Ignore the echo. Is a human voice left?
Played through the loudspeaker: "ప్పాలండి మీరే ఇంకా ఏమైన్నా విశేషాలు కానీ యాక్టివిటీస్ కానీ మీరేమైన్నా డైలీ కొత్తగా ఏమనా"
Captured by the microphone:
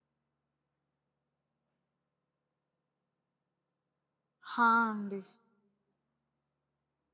Yes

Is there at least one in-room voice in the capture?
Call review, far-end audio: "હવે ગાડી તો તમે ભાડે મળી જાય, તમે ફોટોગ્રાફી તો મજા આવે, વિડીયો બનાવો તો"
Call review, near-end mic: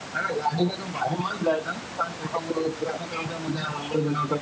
No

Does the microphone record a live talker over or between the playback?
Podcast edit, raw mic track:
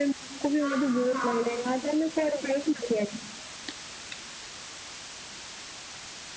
Yes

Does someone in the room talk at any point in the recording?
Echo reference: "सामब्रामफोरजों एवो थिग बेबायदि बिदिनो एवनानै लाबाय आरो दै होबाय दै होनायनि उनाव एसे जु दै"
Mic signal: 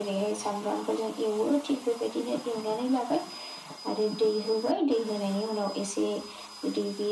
No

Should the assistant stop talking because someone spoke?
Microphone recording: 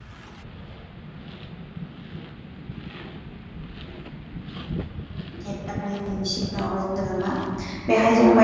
Yes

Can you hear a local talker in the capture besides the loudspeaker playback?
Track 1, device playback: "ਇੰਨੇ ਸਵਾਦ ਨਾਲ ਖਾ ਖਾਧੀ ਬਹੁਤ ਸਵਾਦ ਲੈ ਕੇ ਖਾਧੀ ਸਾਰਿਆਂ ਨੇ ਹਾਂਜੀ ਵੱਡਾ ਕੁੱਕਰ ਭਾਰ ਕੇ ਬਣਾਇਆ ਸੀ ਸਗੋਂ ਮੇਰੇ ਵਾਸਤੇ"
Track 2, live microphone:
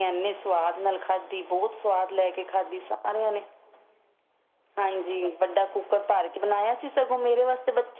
No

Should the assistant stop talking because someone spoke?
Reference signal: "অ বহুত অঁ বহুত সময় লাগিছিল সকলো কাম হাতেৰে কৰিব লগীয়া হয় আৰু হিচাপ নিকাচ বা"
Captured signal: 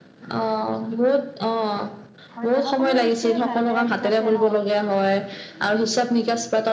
Yes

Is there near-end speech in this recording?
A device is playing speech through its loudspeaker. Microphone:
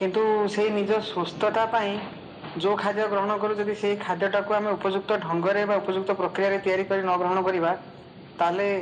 No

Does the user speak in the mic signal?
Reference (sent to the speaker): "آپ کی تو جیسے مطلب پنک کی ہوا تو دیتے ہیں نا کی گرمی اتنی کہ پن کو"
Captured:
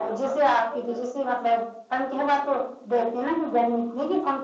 No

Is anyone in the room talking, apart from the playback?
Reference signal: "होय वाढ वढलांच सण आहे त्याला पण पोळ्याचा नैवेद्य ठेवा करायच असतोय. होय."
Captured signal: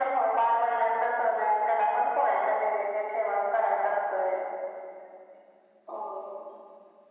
No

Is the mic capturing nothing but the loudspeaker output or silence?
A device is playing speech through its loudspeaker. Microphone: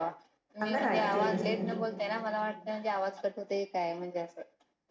No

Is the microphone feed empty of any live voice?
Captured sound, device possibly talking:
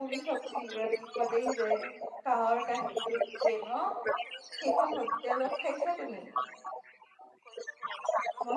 No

